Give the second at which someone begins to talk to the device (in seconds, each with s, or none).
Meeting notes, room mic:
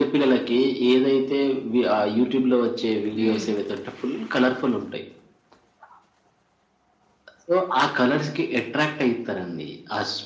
3.2 s